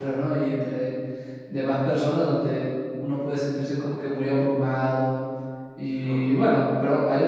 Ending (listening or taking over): listening